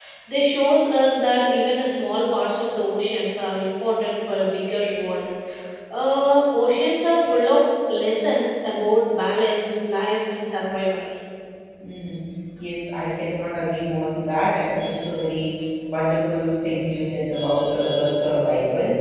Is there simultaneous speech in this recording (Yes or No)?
No